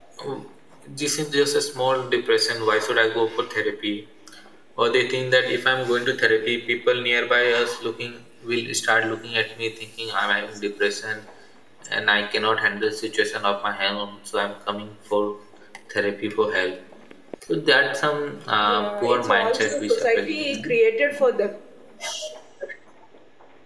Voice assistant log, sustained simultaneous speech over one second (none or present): present